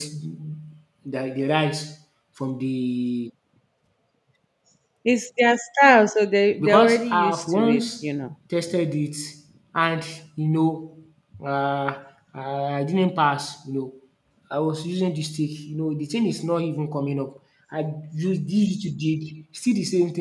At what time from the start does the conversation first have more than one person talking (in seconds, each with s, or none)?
6.6 s